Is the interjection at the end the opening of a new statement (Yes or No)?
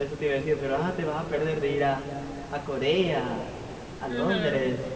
Yes